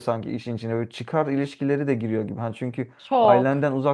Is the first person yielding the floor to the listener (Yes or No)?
No